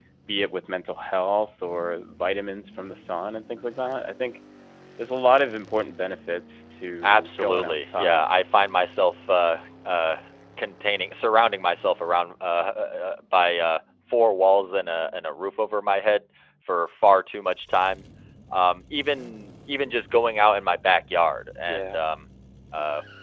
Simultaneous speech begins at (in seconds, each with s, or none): 7.0 s